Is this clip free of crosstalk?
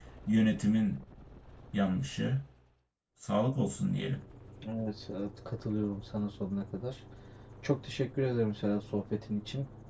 Yes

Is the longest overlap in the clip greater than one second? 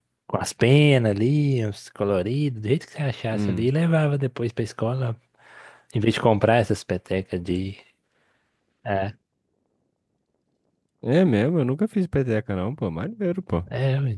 No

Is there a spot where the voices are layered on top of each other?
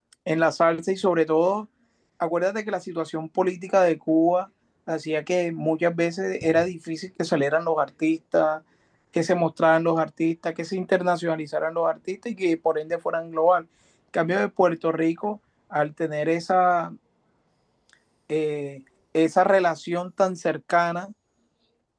No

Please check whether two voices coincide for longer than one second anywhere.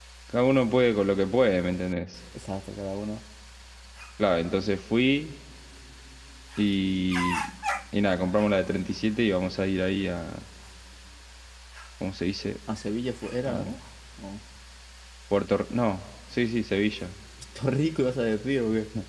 No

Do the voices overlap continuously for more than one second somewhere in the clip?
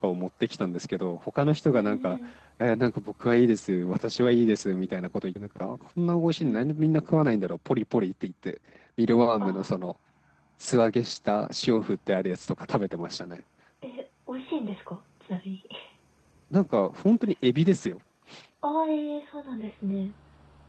No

